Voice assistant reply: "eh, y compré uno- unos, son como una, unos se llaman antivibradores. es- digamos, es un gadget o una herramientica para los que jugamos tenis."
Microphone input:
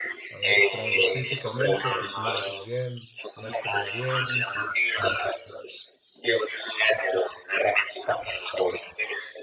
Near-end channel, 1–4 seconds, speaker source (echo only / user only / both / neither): both